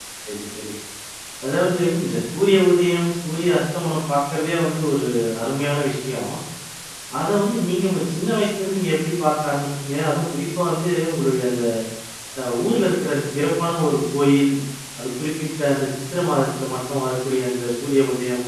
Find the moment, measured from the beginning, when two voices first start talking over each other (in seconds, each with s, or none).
none